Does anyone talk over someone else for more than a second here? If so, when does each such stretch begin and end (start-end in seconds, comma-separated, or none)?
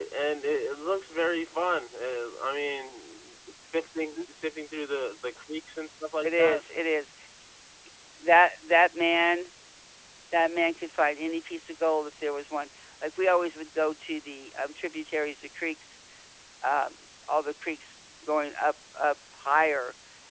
none